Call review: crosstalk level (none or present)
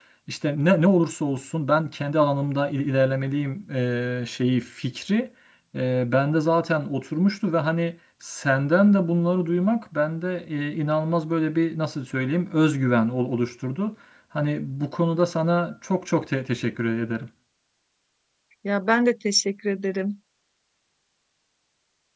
none